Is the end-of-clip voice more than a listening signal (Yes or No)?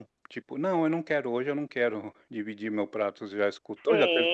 Yes